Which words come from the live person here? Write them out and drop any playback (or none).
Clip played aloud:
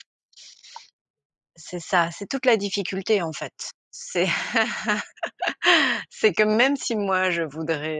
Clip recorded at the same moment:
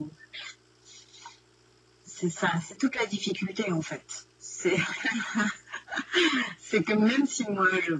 none